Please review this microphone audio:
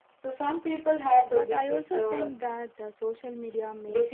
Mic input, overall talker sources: both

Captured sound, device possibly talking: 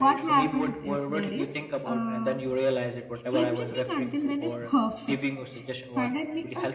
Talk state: both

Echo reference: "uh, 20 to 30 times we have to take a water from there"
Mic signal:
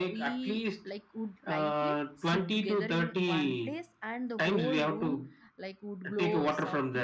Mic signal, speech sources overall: both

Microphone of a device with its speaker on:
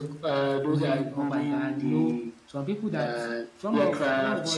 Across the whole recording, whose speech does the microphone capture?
both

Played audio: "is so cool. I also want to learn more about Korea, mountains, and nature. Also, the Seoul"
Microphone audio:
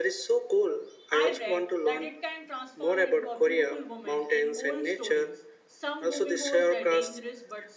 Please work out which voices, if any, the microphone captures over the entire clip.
both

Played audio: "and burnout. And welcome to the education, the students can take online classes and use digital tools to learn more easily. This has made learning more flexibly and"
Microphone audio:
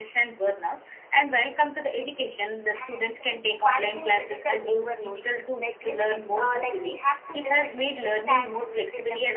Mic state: both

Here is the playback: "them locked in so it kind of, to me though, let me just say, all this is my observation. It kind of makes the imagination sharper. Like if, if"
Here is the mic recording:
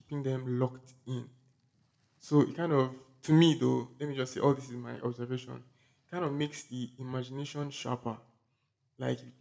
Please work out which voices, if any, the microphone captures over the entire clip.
echo only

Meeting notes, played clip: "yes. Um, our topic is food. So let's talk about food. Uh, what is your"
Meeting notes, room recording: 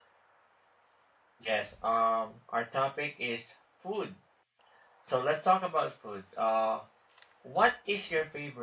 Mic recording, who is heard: echo only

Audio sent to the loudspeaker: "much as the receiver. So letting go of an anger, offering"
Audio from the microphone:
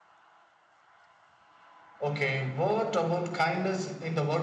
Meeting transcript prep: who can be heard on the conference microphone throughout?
user only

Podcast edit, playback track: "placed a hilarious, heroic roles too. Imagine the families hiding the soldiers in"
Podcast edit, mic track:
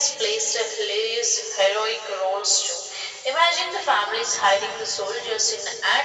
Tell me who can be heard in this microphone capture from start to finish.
echo only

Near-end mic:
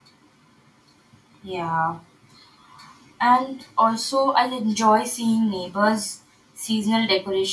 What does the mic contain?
user only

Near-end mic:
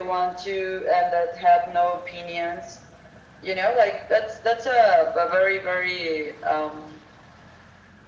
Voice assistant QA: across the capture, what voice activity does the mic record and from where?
echo only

